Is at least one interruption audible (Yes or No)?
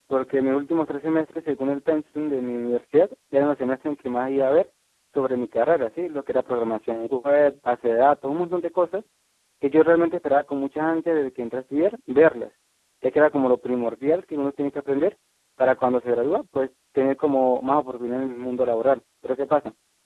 No